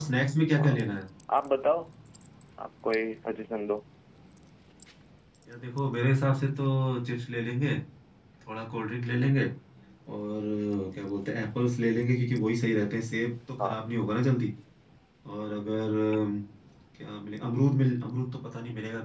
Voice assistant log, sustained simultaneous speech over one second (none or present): none